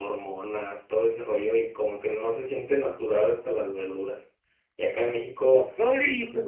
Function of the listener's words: listening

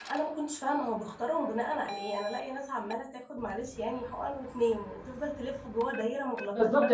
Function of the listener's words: taking over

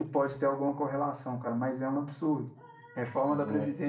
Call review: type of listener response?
listening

